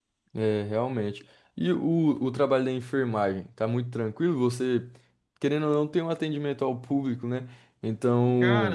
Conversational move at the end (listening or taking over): listening